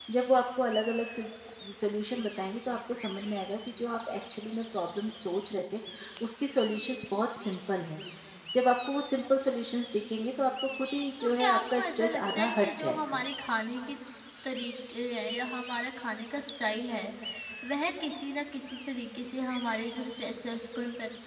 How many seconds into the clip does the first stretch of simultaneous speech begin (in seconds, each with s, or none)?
11.2 s